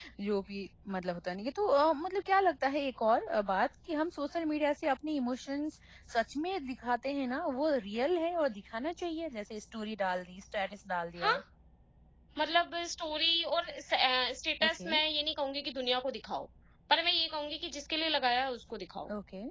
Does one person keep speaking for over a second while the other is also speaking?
No

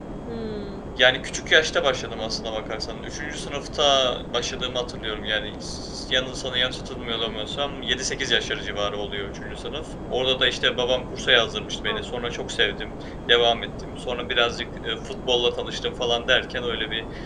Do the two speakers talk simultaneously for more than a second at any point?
No

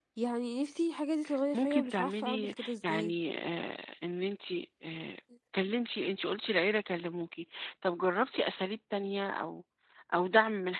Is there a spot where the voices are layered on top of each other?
Yes, from 1.5 s

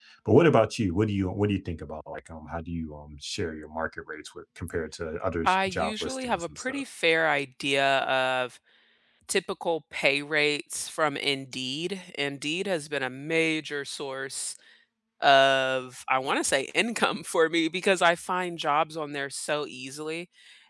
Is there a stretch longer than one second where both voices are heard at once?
Yes, from 5.4 s

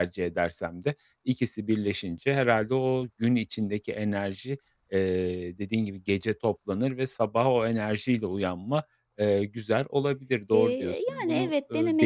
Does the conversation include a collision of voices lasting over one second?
Yes, from 10.5 s

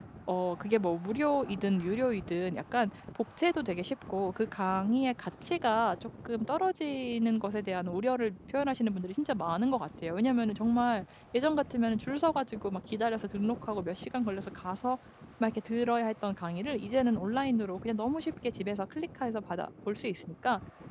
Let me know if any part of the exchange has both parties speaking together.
No

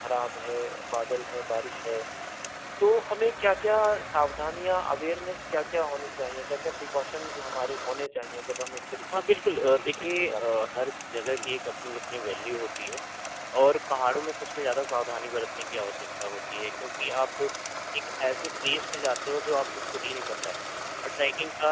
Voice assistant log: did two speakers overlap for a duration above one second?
Yes, from 9.1 s

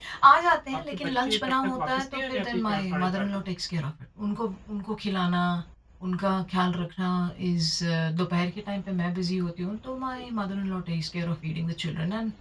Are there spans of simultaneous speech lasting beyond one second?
Yes, from 0.9 s

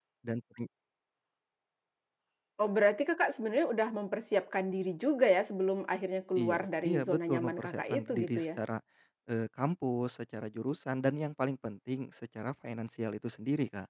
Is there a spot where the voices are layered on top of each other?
Yes, from 6.4 s

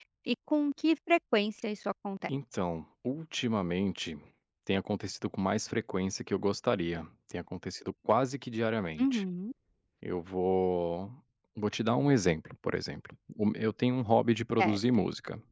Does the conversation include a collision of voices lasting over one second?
No

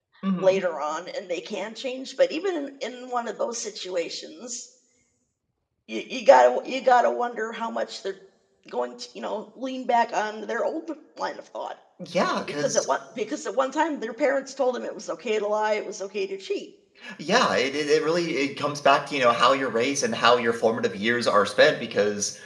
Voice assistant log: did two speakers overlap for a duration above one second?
No

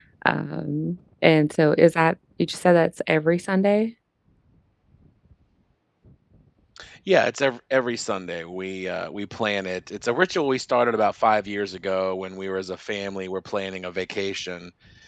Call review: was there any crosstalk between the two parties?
No

